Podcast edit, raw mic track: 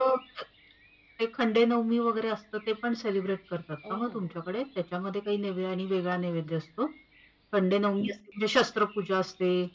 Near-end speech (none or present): present